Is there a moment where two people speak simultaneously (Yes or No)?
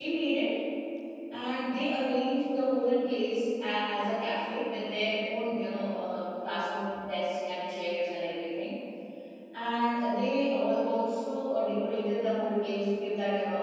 No